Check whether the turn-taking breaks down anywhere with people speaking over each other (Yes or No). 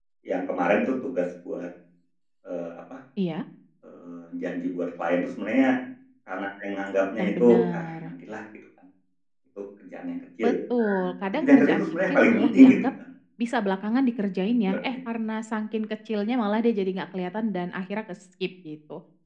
Yes